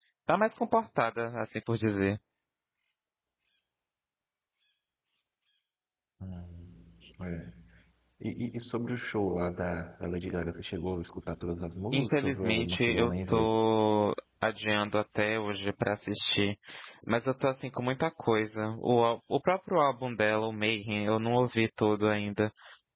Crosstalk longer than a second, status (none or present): present